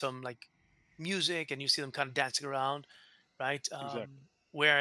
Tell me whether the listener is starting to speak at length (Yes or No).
No